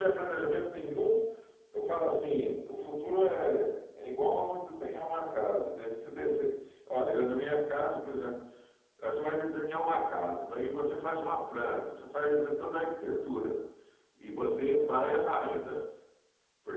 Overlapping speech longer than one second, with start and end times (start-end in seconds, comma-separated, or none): none